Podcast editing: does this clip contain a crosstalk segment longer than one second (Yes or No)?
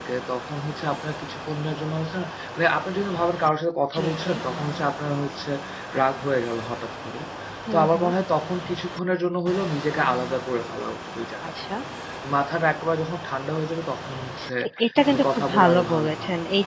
Yes